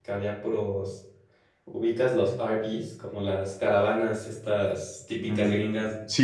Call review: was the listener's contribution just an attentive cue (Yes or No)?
No